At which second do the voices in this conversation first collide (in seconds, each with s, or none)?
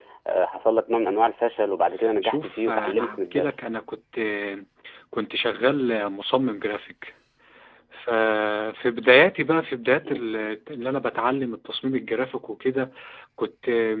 2.2 s